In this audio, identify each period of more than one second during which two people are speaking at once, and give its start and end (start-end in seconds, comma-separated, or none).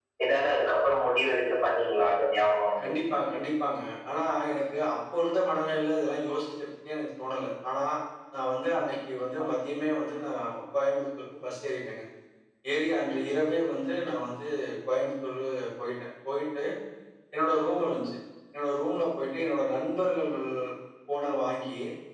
none